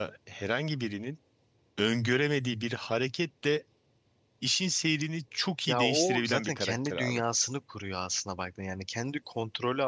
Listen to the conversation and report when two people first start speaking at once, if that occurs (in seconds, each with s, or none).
5.7 s